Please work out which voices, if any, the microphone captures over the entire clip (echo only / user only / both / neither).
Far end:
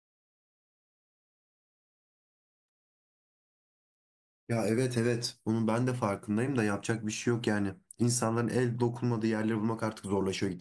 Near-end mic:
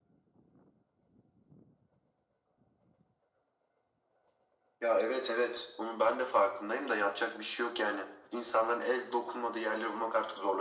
echo only